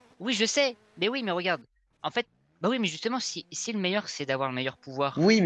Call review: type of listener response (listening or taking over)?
taking over